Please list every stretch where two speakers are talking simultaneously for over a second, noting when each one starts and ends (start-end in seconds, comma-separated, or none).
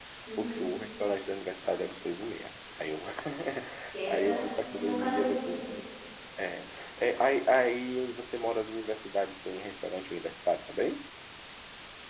4.1-5.7